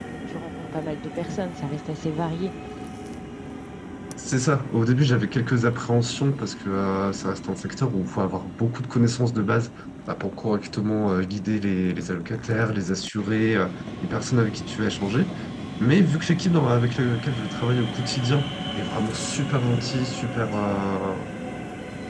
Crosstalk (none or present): none